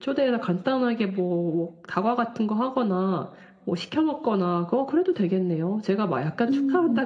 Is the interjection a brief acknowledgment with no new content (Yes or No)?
Yes